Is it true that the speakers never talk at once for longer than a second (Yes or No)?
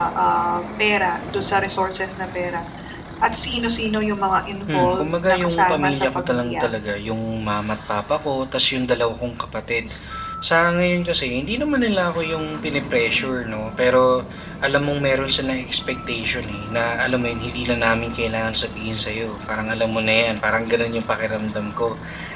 No